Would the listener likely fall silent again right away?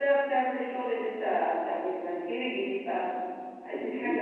No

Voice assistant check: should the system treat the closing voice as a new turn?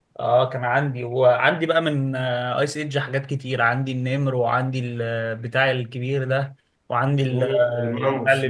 Yes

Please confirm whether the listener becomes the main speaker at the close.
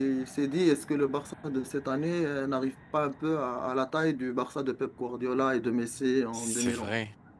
Yes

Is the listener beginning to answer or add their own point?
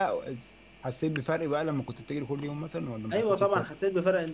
Yes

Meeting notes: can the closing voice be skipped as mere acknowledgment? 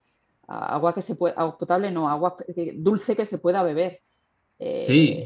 No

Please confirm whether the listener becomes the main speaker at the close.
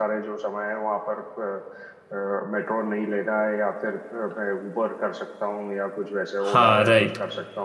Yes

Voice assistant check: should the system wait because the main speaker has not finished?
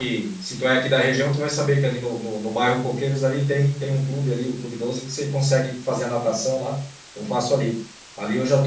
Yes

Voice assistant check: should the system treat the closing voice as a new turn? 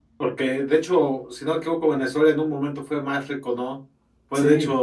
No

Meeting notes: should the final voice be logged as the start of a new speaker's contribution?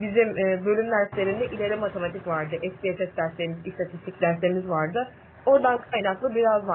No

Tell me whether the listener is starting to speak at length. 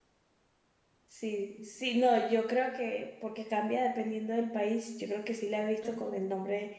No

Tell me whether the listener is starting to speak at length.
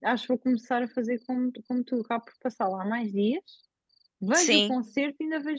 No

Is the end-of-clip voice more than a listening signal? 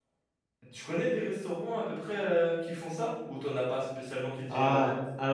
Yes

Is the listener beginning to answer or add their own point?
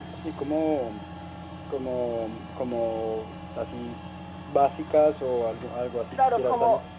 Yes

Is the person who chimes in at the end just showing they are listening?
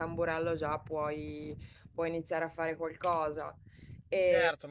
No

